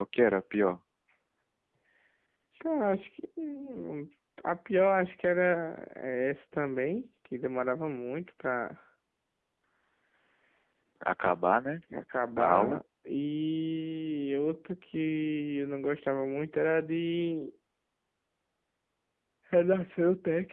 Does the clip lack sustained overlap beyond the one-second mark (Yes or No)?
Yes